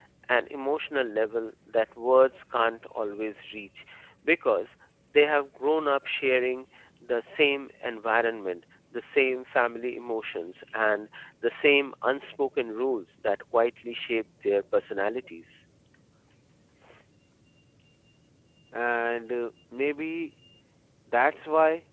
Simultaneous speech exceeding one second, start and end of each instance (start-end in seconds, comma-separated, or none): none